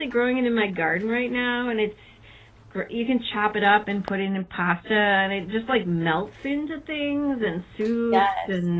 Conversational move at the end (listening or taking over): listening